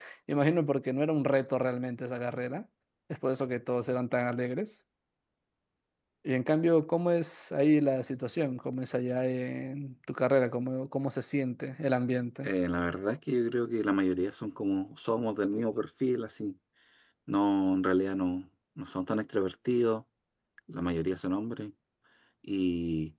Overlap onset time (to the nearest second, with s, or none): none